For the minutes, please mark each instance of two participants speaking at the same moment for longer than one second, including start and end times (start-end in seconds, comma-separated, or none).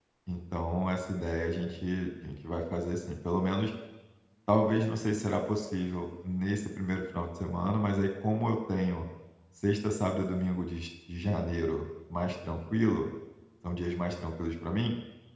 none